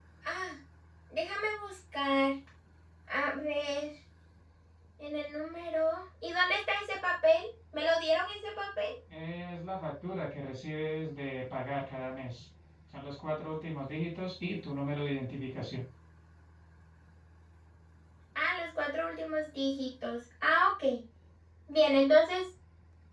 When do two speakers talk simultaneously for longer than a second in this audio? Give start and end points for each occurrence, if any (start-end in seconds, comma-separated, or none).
none